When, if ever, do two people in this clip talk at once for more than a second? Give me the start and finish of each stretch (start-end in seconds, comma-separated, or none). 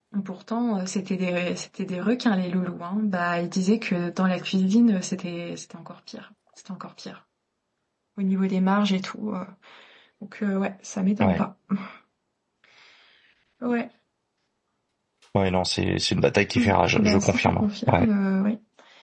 16.6-18.1